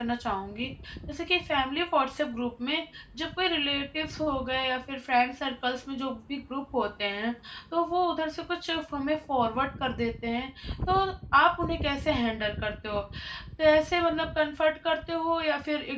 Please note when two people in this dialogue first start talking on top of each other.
none

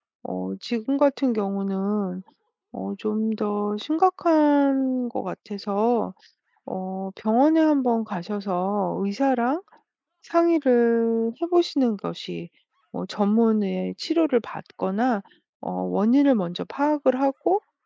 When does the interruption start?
none

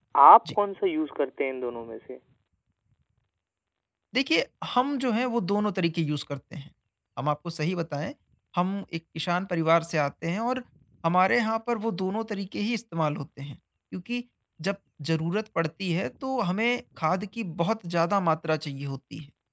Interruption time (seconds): none

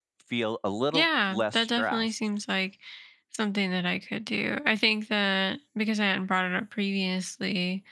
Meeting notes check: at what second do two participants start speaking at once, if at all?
1 s

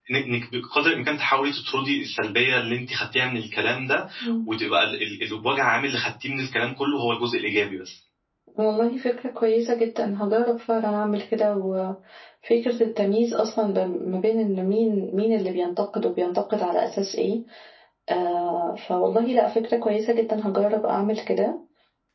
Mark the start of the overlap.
none

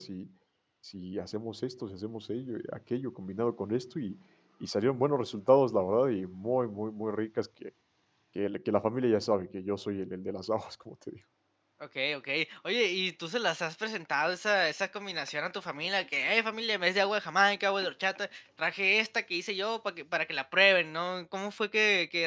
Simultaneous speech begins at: none

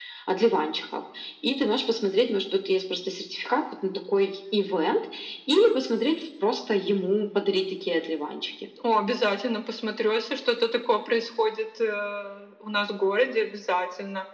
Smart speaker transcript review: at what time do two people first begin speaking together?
none

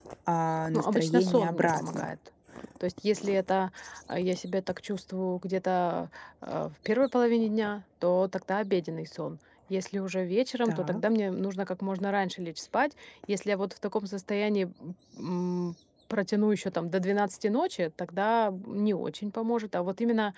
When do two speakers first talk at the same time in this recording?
1 s

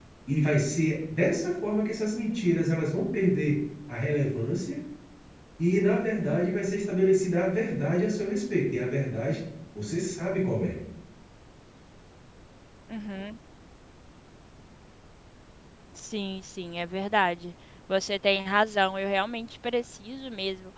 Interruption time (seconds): none

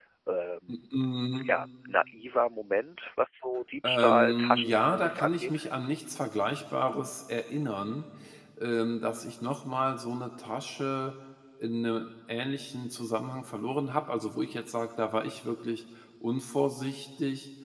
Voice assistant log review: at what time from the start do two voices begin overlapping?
4 s

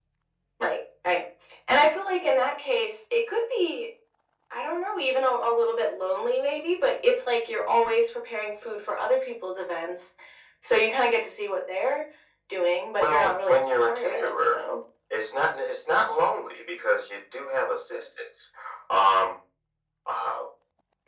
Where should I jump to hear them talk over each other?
13 s

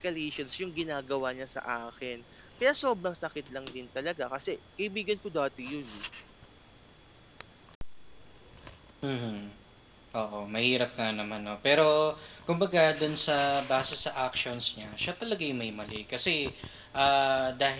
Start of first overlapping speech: none

